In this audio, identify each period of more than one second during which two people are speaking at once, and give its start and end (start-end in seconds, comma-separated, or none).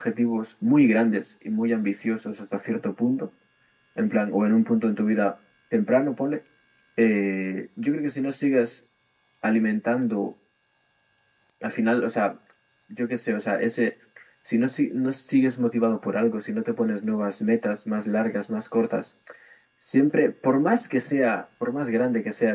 none